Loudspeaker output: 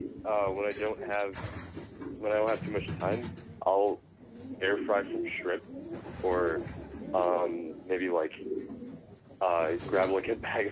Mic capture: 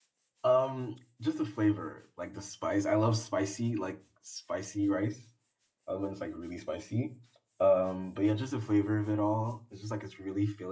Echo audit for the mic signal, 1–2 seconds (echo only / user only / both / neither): user only